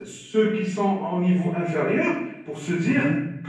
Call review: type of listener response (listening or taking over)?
listening